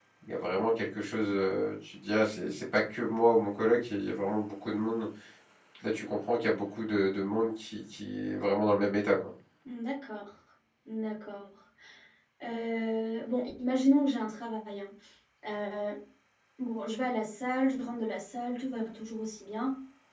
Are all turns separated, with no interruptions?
Yes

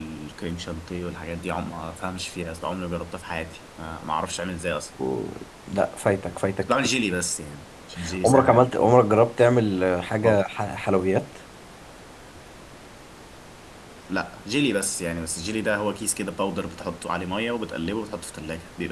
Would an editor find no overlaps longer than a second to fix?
Yes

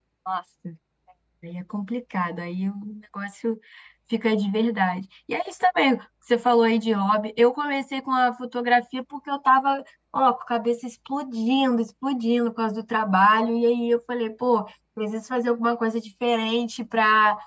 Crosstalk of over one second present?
No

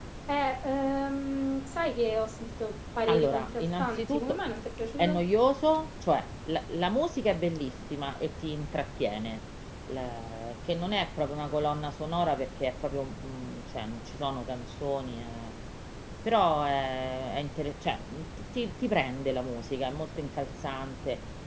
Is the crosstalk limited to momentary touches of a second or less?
No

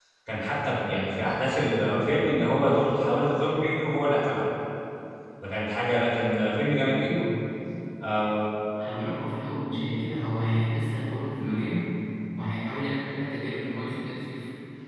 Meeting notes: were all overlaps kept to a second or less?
Yes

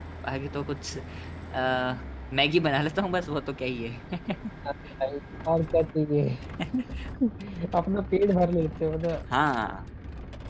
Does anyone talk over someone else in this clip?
No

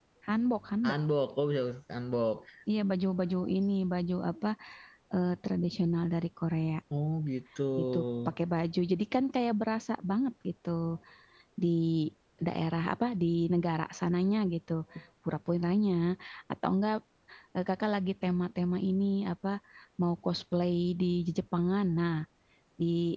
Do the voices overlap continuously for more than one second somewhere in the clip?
No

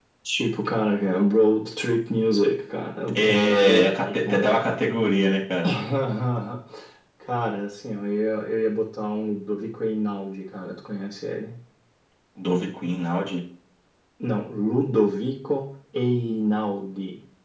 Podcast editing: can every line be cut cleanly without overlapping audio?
No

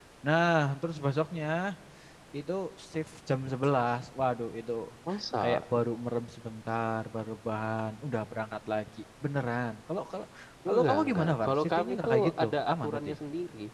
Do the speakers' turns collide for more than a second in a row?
Yes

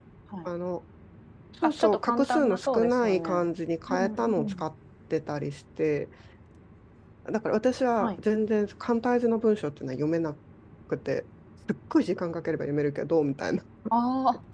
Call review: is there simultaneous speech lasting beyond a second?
Yes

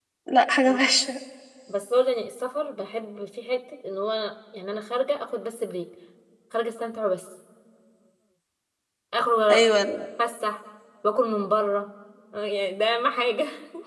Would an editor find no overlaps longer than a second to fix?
Yes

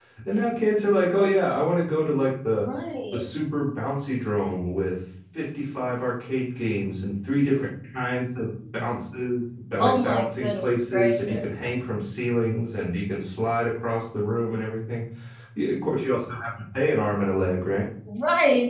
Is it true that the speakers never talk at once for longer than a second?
No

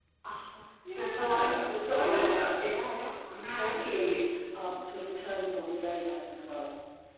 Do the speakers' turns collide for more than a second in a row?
Yes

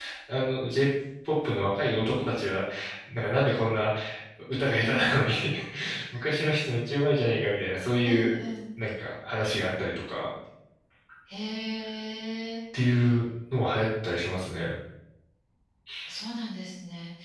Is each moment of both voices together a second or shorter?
Yes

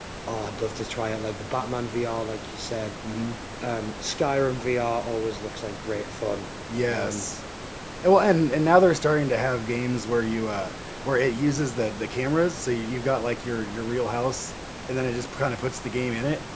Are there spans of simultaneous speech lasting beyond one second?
No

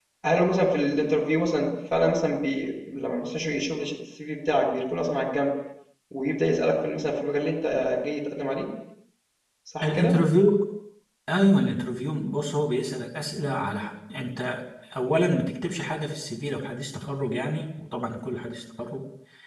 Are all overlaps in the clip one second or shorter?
Yes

